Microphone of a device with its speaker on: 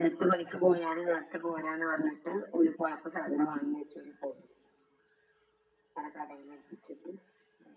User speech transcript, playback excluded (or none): none